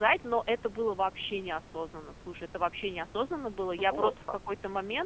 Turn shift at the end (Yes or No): No